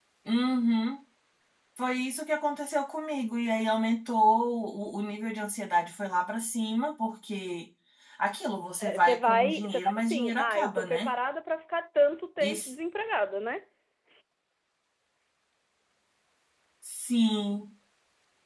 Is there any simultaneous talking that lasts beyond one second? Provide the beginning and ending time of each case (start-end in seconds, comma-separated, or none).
8.8-11.1